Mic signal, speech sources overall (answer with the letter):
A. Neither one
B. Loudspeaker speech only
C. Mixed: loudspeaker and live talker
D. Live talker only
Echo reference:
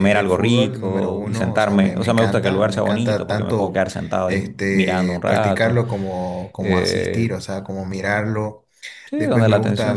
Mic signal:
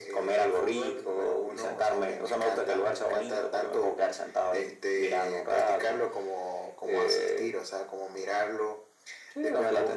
B